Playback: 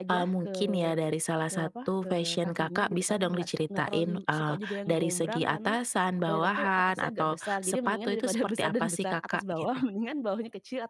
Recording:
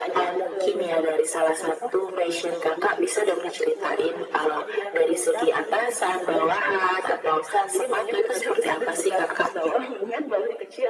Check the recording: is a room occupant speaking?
No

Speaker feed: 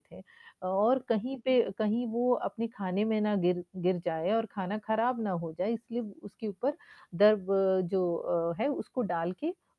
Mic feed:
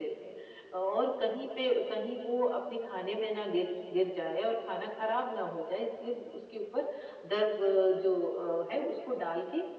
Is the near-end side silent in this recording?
Yes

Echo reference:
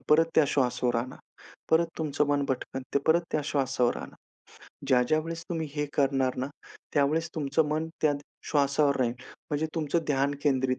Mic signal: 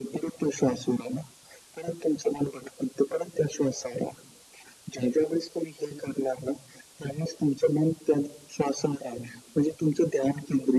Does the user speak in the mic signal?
No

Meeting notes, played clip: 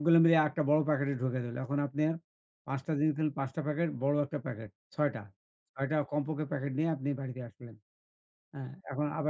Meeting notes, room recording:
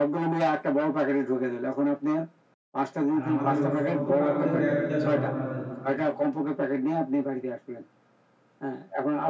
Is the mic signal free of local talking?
No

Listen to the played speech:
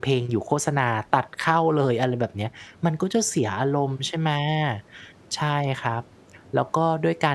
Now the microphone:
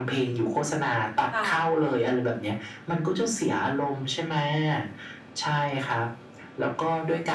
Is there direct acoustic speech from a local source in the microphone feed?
Yes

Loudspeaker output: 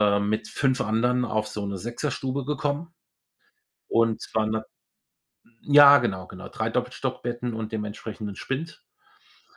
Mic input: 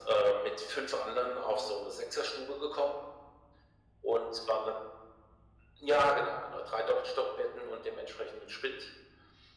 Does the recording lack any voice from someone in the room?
Yes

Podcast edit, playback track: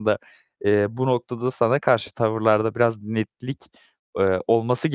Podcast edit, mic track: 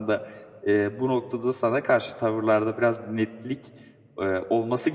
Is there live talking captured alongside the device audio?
No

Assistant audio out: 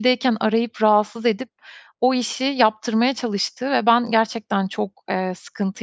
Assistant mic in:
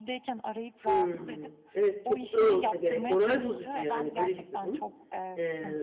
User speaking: Yes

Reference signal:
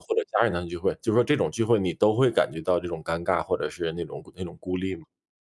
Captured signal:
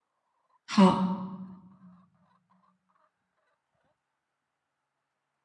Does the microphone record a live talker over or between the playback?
Yes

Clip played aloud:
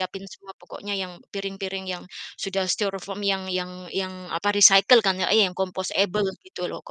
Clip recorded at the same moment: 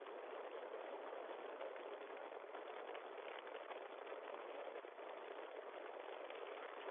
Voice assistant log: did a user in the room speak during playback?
No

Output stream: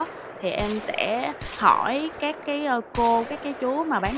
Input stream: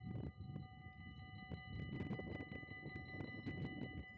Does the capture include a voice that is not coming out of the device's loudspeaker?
No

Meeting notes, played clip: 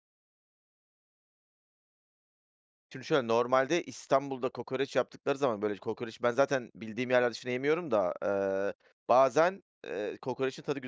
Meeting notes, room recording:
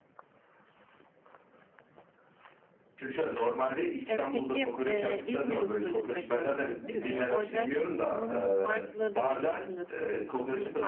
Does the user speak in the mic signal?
Yes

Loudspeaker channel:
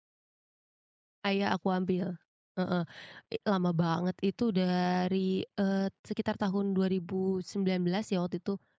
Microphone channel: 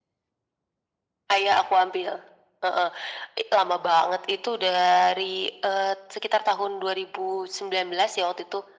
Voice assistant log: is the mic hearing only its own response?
Yes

